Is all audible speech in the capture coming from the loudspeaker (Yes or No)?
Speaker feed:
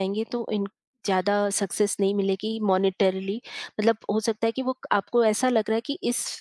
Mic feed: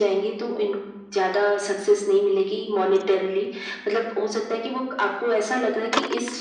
Yes